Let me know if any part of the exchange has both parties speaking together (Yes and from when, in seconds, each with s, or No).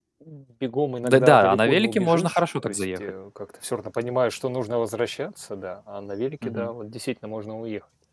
Yes, from 1.0 s